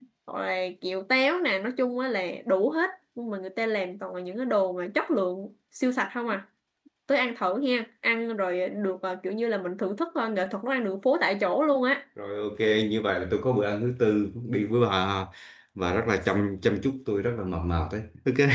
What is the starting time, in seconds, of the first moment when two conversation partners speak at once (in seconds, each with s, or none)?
none